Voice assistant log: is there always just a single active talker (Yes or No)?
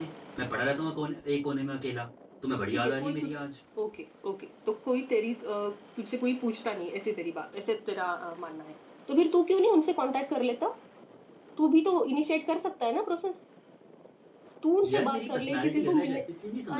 No